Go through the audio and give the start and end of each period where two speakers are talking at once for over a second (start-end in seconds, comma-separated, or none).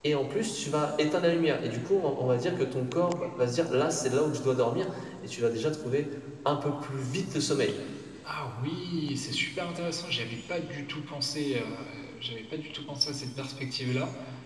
none